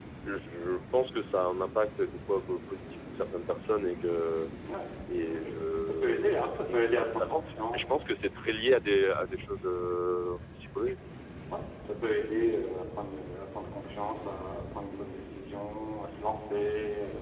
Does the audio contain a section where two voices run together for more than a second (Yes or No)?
Yes